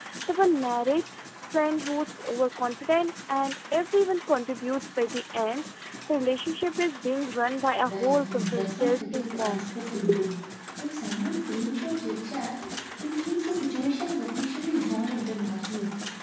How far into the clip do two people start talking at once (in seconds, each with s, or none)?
7.8 s